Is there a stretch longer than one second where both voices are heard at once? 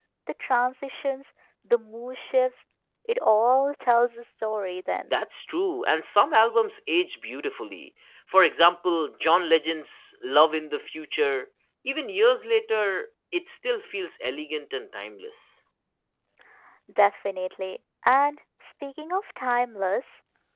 No

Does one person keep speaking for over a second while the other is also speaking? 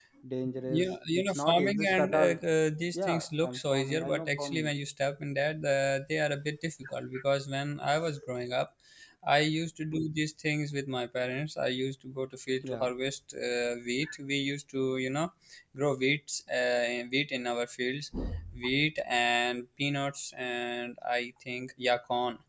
Yes, from 0.7 s

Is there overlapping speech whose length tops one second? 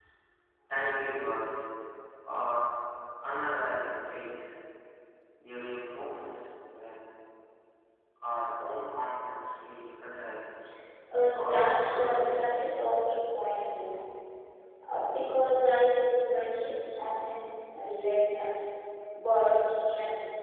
Yes, from 11.3 s

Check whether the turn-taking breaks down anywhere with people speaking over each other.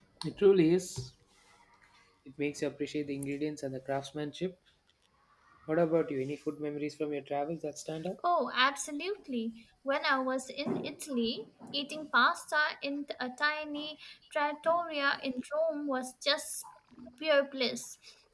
No

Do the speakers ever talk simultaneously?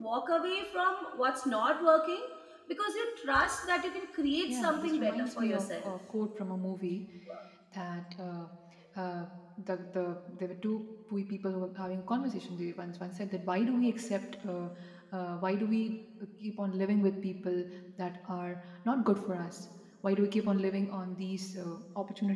Yes, from 4.5 s

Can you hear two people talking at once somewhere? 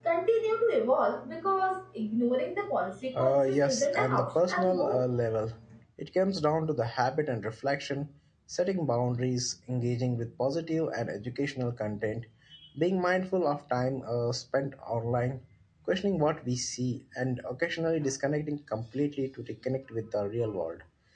Yes, from 3.1 s

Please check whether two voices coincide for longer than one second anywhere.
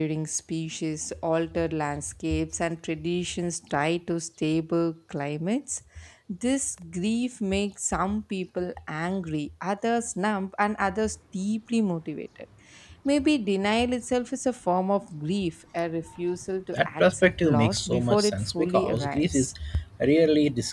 Yes, from 16.7 s

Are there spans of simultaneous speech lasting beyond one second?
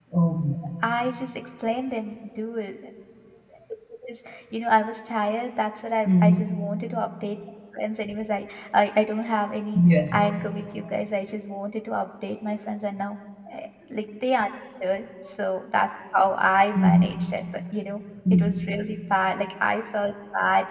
No

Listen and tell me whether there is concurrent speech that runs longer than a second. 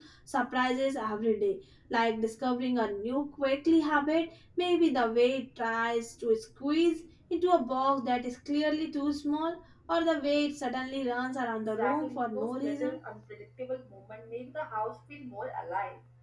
Yes, from 11.7 s

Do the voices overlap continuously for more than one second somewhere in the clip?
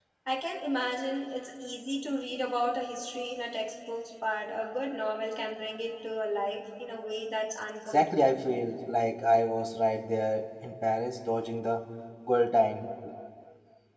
No

